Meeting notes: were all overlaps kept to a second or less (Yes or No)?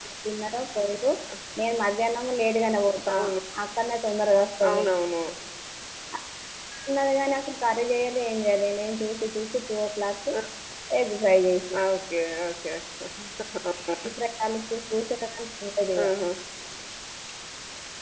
Yes